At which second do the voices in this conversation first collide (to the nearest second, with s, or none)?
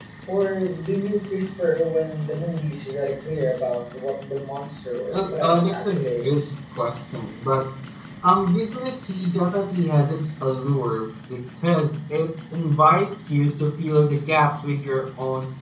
5 s